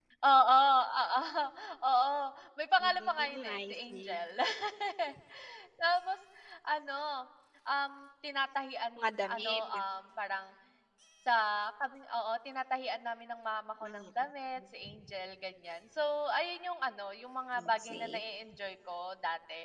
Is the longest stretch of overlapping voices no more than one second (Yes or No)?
No